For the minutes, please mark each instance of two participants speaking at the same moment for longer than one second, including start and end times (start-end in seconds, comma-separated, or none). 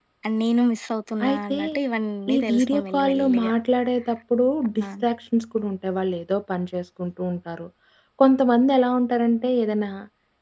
2.3-3.5